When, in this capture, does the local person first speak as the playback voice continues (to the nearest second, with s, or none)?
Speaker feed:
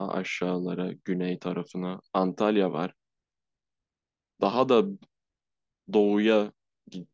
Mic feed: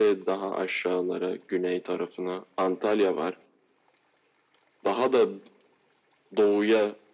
none